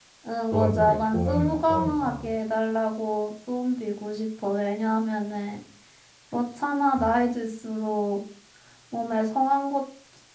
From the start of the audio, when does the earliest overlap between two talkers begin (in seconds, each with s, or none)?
0.5 s